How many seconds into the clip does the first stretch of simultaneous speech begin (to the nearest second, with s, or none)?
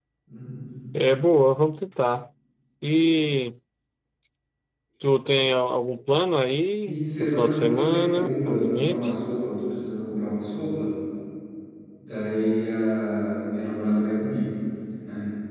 7 s